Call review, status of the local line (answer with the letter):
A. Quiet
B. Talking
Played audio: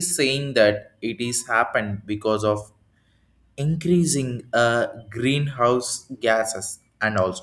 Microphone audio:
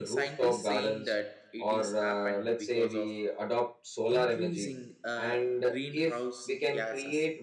B